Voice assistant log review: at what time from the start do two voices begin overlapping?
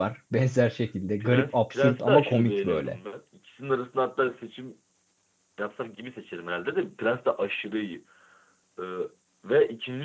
1 s

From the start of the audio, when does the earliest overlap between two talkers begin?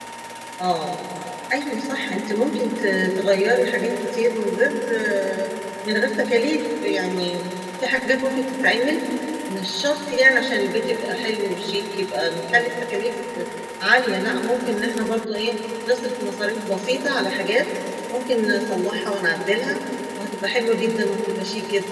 none

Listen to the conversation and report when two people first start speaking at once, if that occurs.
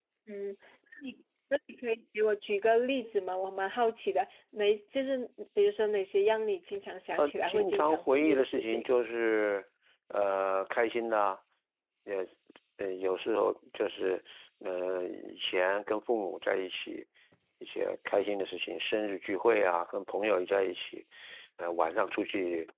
7 s

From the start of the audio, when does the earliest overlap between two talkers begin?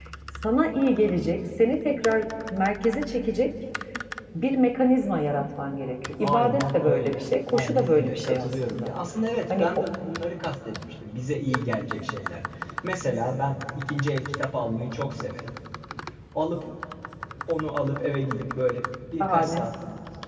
6 s

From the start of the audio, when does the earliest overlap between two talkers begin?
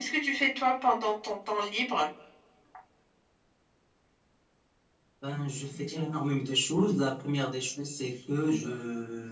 none

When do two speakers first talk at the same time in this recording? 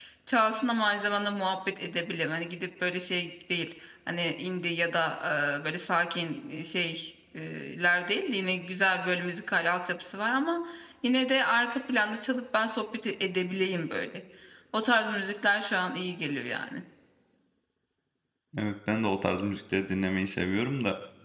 none

